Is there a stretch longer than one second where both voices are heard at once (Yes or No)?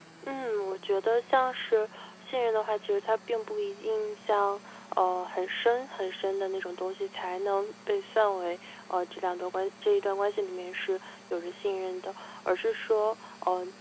No